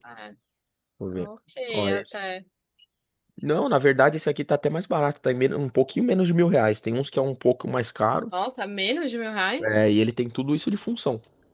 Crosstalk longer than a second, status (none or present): none